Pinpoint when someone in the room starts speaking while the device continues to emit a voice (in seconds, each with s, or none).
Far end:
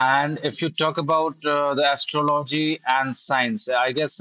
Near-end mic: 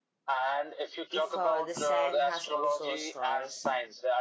1.1 s